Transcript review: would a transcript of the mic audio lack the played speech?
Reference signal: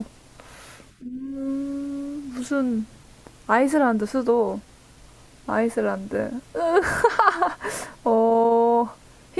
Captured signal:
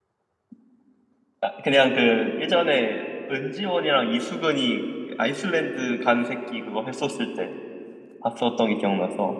Yes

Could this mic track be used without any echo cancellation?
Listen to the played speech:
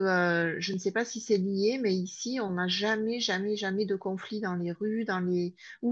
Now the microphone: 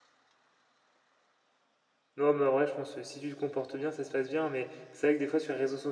Yes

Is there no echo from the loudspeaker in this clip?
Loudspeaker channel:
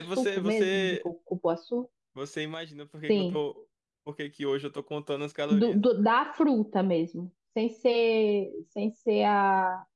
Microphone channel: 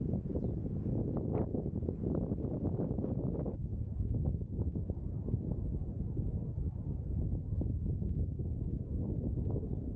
Yes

